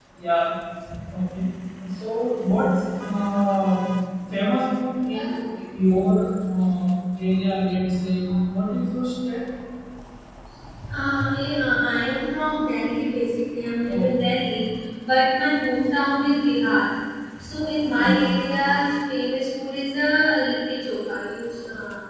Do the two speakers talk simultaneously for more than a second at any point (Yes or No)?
No